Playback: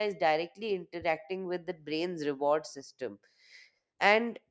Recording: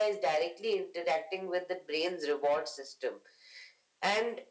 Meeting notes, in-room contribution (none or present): none